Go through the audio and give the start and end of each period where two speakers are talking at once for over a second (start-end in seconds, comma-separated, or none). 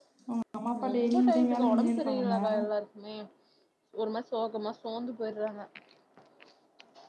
0.9-2.4